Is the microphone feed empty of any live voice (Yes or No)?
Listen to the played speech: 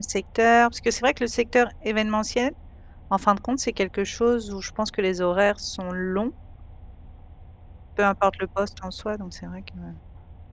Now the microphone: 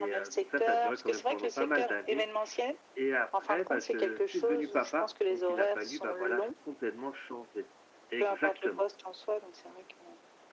No